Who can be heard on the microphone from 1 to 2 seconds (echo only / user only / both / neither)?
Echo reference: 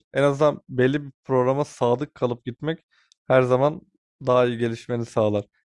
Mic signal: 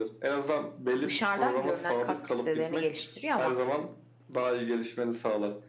both